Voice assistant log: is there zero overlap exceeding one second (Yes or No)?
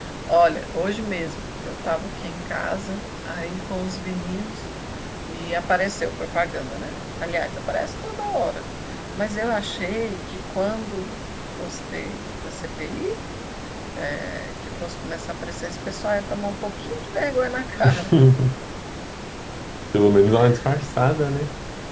Yes